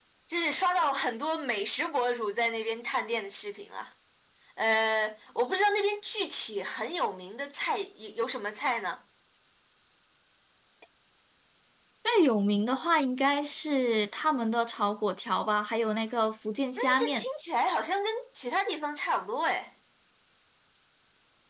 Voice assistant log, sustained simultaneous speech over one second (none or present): none